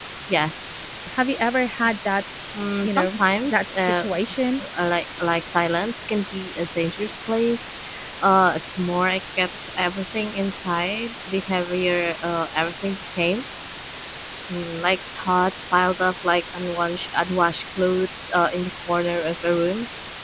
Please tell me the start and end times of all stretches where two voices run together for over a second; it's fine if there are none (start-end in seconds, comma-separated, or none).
2.8-4.0